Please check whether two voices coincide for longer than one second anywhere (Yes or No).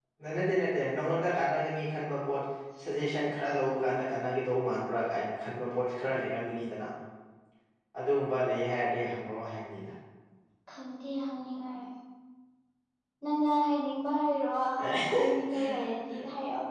No